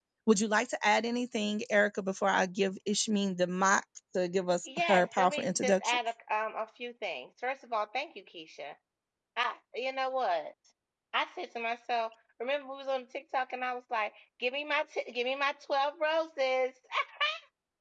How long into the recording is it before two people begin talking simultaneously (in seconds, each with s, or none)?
4.7 s